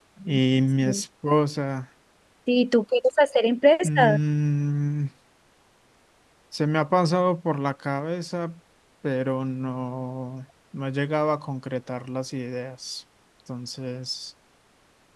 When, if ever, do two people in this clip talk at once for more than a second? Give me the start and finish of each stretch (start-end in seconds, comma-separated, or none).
none